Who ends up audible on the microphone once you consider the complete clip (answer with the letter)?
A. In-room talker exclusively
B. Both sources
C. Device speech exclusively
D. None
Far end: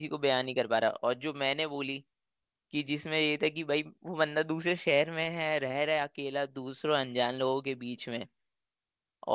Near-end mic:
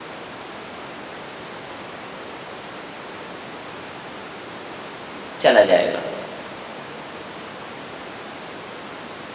A